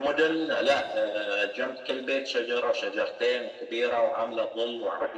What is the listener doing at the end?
taking over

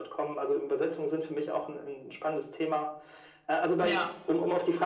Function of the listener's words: listening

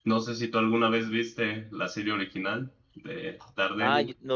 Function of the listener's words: taking over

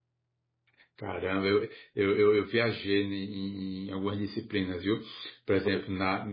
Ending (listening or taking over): listening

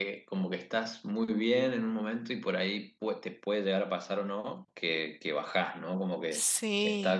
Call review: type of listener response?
listening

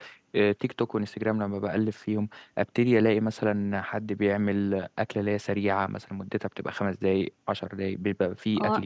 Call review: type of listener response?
taking over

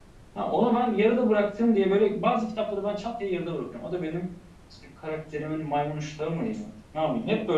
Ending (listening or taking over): listening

